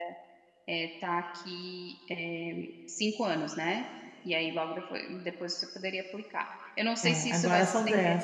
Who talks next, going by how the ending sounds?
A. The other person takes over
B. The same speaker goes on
A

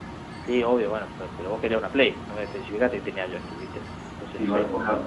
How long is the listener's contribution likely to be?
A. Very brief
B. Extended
B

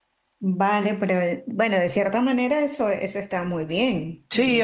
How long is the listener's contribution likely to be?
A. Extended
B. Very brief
A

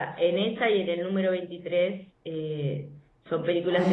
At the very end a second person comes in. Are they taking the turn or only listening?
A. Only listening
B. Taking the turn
B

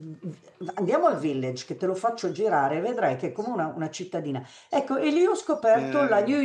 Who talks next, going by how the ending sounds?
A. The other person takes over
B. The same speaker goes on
B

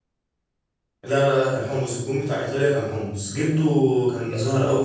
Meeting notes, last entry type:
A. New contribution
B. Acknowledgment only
B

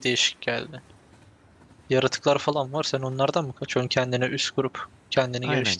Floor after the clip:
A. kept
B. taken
B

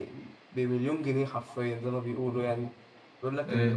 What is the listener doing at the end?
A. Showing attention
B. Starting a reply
A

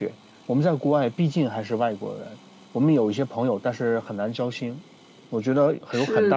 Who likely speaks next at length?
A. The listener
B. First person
A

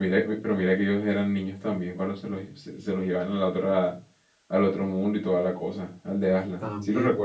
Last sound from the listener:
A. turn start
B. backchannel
A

